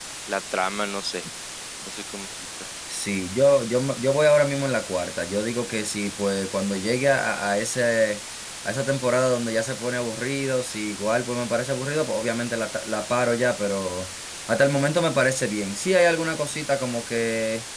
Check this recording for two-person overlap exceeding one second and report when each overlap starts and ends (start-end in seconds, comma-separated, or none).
none